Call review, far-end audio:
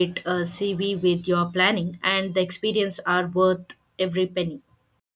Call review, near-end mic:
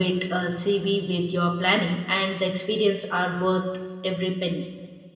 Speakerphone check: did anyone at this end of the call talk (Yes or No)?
No